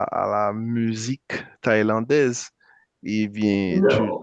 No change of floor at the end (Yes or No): No